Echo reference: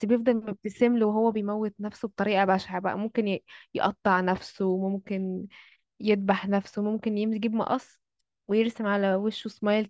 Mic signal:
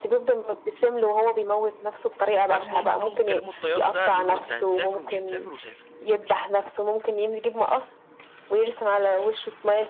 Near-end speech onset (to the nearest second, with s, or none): 2 s